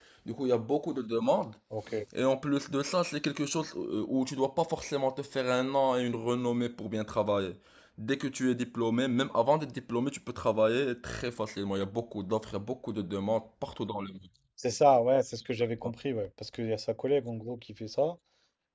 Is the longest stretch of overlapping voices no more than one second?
Yes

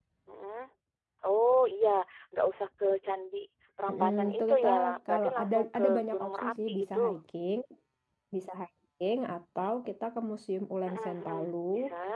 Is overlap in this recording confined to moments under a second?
No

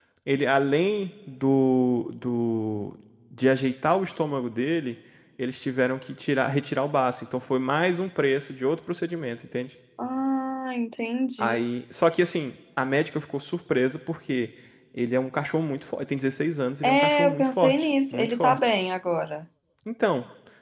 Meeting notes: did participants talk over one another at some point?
Yes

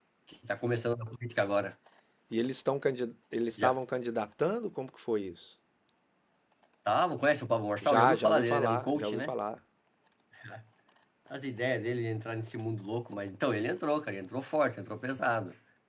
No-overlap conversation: No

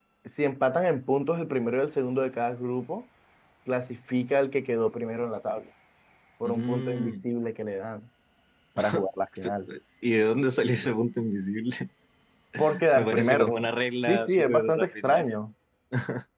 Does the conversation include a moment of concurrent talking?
Yes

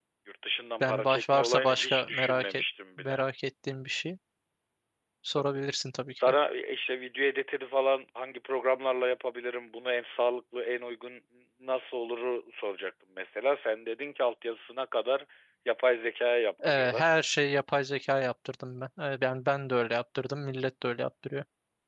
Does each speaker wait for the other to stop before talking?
No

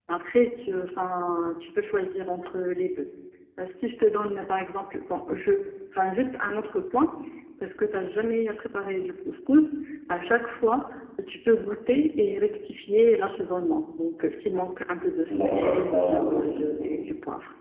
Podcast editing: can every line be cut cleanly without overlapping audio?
No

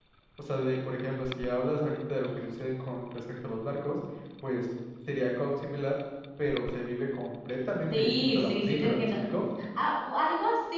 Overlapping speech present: Yes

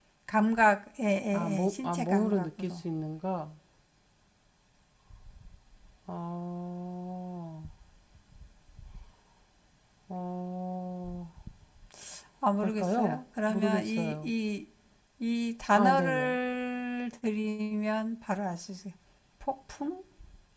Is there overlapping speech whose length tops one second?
Yes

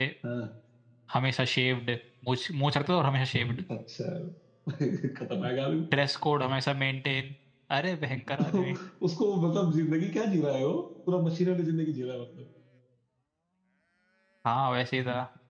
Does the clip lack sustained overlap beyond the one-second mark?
Yes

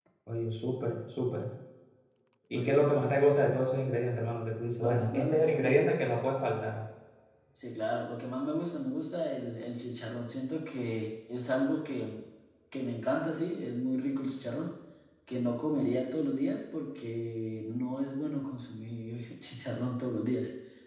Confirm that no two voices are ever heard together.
No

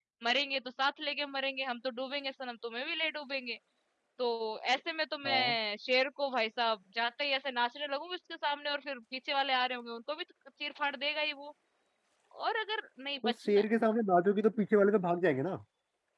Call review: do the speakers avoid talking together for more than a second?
Yes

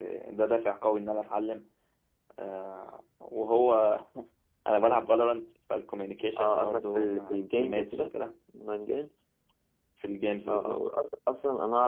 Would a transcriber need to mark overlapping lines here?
Yes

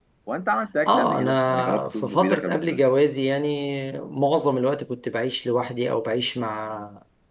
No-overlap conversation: No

